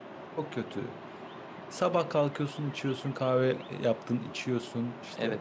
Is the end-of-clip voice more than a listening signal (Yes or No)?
Yes